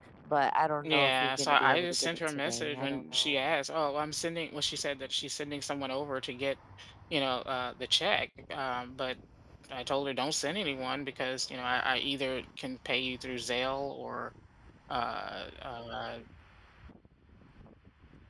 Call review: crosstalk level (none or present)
present